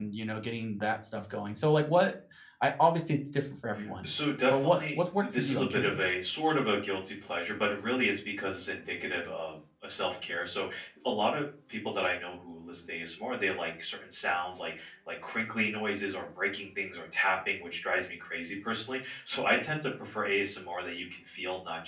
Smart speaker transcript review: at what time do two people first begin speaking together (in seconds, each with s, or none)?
4.5 s